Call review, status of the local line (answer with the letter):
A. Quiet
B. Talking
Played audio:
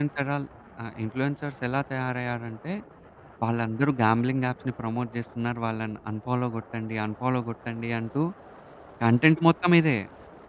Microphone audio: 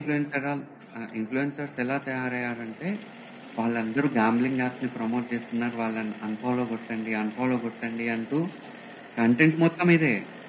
A